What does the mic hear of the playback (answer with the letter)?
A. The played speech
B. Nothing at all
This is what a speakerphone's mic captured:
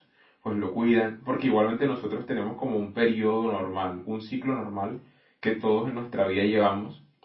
B